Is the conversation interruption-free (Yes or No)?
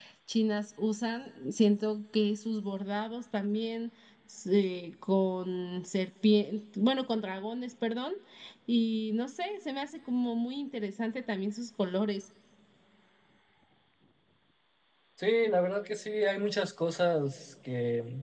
Yes